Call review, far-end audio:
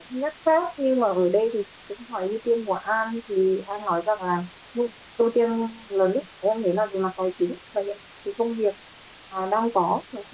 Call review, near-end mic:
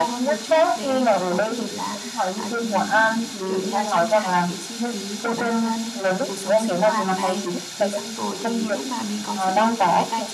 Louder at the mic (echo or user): echo